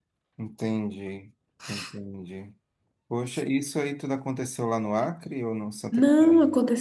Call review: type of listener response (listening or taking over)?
taking over